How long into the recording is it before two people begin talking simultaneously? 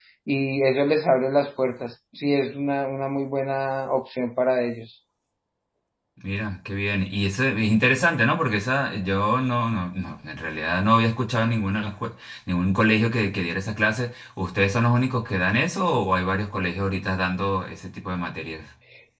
none

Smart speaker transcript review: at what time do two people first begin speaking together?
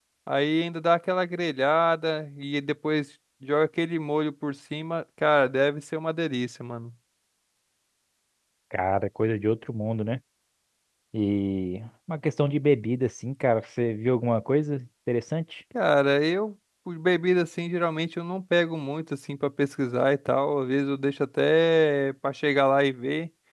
none

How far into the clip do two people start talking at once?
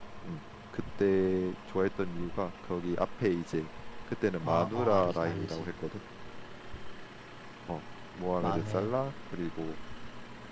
4.4 s

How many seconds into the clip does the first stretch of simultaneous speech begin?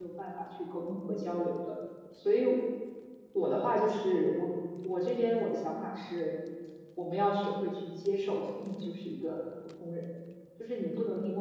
none

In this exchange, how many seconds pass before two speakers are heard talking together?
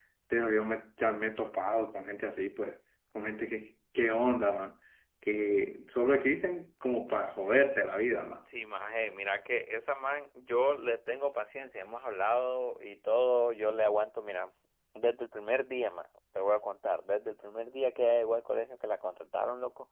none

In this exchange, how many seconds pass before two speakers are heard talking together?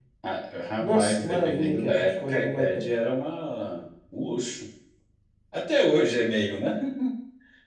0.8 s

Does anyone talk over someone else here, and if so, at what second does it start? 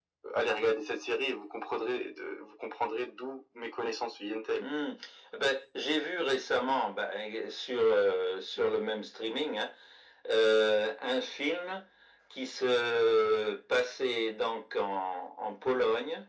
none

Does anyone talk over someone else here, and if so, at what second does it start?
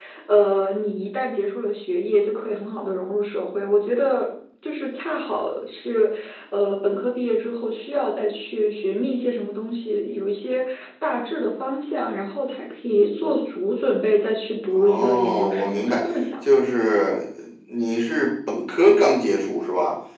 14.7 s

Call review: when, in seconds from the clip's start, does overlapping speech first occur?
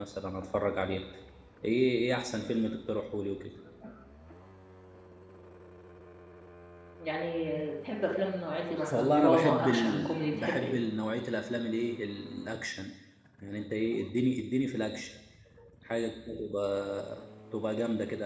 8.8 s

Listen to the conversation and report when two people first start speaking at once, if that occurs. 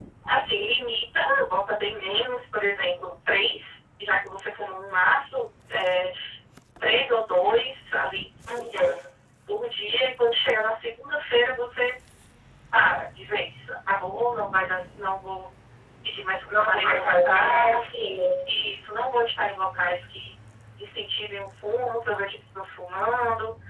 16.5 s

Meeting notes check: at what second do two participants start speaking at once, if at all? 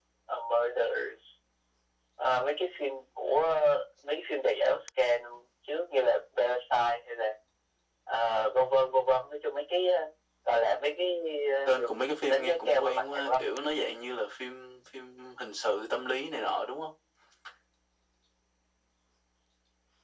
11.7 s

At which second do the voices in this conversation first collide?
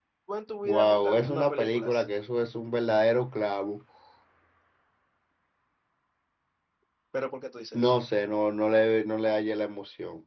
0.6 s

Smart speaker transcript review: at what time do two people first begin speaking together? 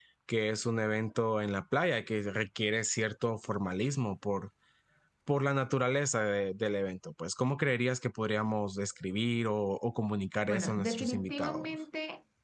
10.5 s

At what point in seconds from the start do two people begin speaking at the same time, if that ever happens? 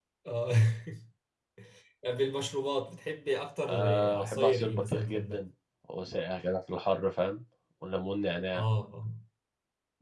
3.7 s

